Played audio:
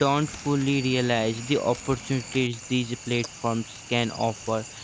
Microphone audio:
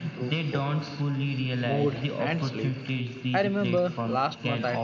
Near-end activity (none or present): present